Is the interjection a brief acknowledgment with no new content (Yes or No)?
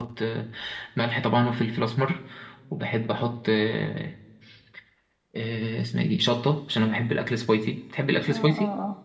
No